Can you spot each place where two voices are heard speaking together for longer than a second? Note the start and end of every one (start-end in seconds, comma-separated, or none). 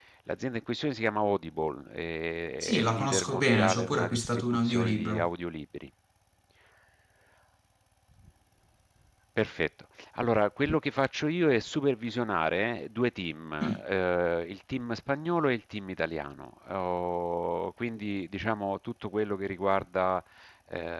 2.6-5.3